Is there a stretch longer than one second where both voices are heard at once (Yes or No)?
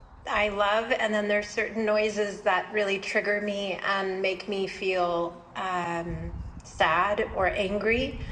No